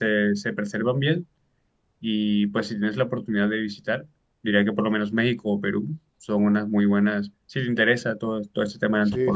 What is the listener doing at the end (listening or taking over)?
listening